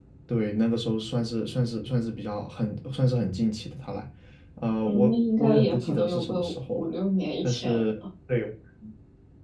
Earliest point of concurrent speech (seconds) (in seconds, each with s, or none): 4.8 s